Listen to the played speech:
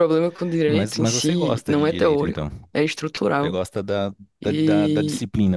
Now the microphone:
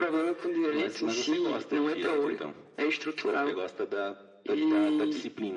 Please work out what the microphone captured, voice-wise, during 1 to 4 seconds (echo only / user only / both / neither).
echo only